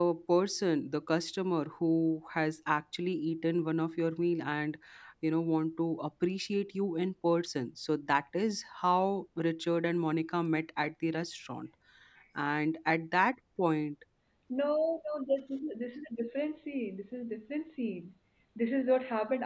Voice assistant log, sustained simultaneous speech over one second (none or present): none